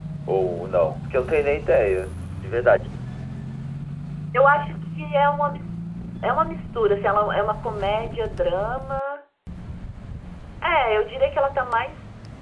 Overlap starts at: none

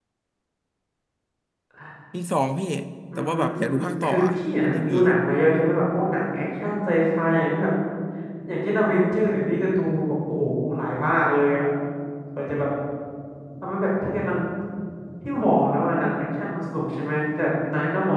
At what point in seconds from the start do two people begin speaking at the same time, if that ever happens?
3.2 s

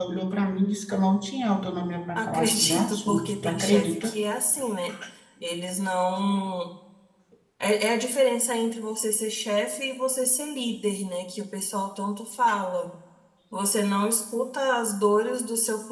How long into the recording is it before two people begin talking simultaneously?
2.1 s

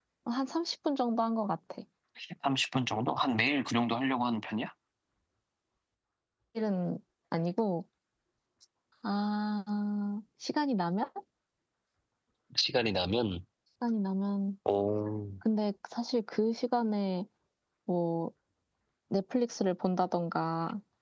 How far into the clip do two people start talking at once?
none

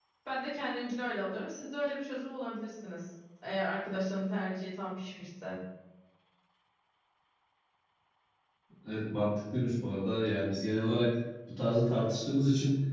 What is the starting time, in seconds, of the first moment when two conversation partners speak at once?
none

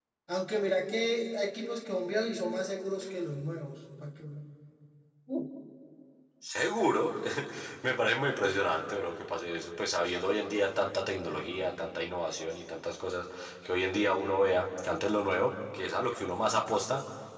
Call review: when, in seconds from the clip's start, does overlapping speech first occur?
none

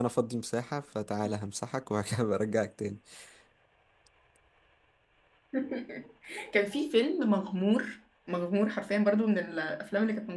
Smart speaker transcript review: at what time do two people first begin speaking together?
none

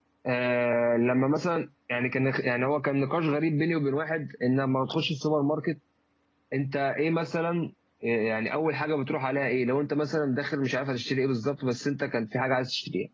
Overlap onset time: none

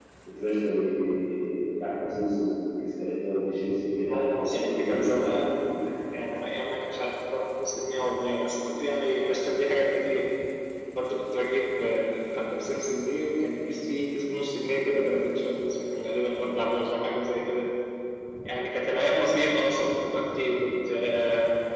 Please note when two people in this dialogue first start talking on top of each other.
4.1 s

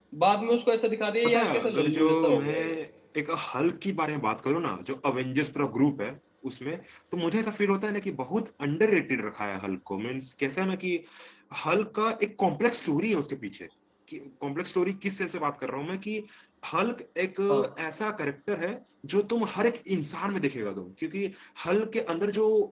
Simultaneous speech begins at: 1.2 s

